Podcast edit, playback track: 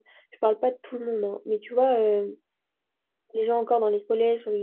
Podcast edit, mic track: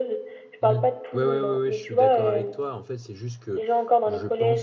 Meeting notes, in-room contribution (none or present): present